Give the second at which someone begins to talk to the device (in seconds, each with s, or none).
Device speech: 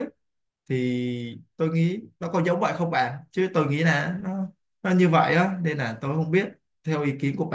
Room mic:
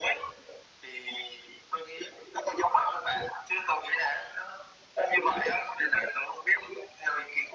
none